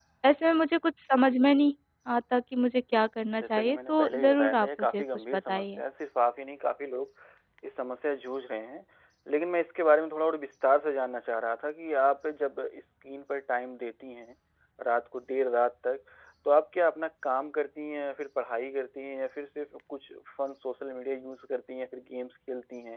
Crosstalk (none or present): present